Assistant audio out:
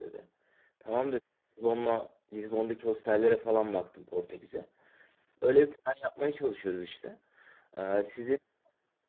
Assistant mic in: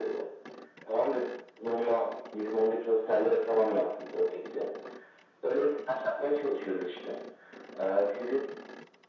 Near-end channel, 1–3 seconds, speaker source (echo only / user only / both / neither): echo only